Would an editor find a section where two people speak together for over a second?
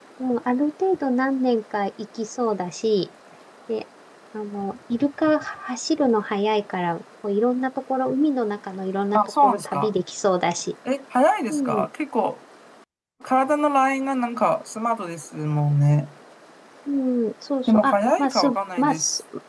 Yes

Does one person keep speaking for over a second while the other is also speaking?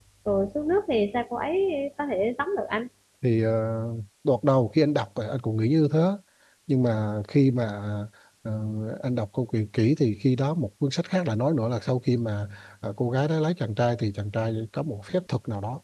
No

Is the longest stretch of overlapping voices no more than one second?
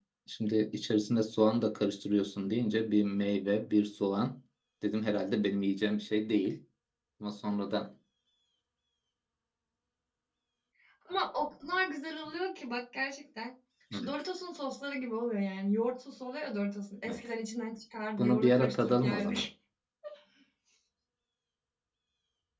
No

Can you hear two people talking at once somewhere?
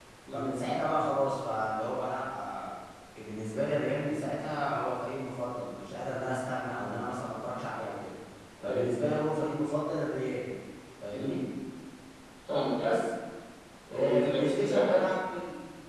Yes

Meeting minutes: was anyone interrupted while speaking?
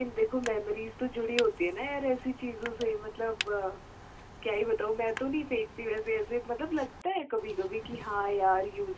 No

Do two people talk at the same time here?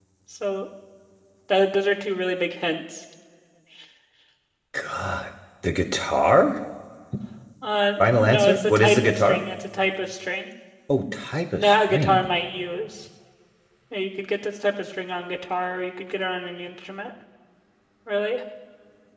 Yes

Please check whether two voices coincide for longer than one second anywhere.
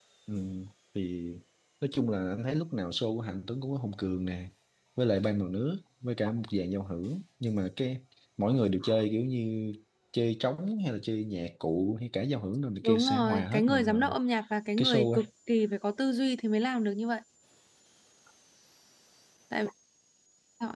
Yes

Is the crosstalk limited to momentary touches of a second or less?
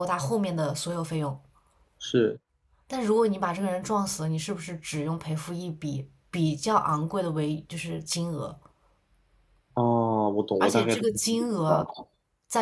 No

